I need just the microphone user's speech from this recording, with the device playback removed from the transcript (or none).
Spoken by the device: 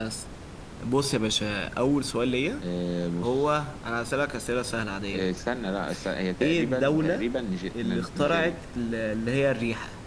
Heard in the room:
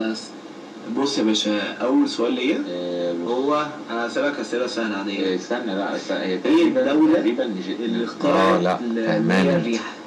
اه لا فهمان انت